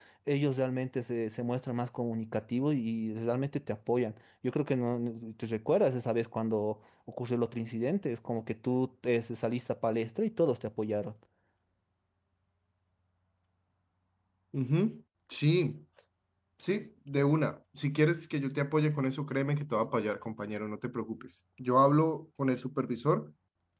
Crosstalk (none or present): none